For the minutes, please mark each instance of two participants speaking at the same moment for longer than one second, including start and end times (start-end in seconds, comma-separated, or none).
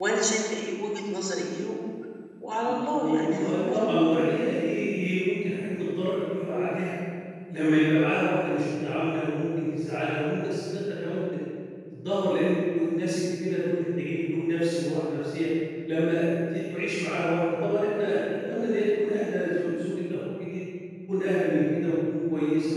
2.6-3.9